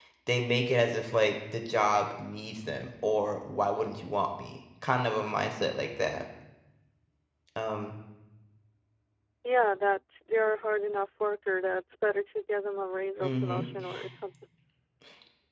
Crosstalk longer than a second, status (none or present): none